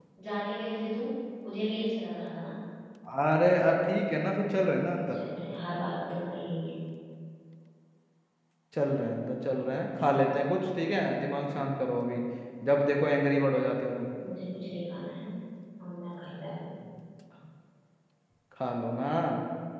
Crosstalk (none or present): none